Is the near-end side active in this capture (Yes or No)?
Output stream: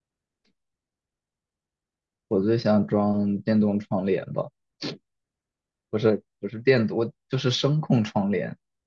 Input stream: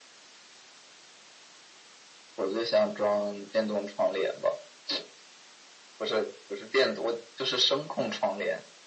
No